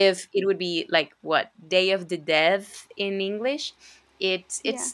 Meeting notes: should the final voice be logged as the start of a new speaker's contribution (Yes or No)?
No